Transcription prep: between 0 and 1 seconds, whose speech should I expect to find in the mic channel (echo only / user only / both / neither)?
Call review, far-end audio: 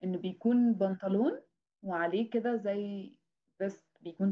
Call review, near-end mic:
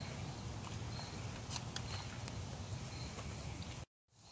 neither